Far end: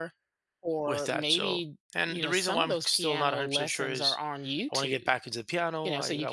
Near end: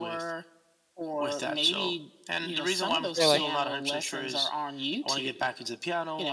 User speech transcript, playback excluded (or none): really.